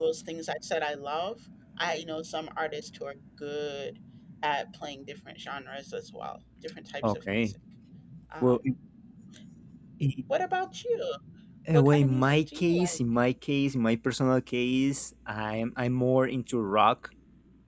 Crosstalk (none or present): present